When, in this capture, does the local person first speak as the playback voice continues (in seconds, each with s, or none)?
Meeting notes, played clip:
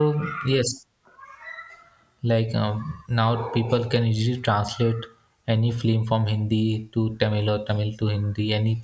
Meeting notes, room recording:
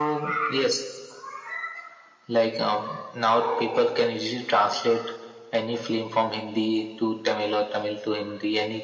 none